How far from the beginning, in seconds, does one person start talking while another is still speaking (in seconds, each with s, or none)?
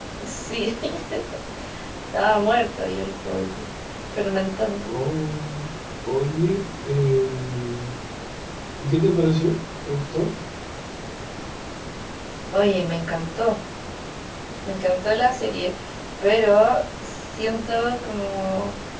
none